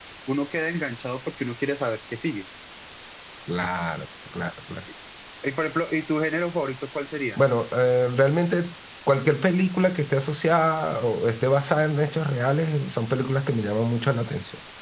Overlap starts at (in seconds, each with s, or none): none